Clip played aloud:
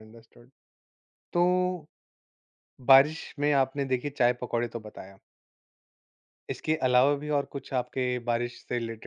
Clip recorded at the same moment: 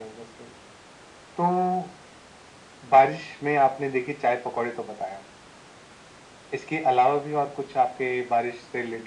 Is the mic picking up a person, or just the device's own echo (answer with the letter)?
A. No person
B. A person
A